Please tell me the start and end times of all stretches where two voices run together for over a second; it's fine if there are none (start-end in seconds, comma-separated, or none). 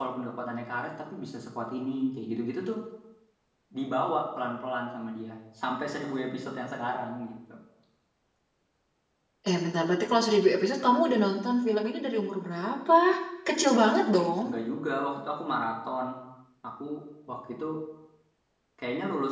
none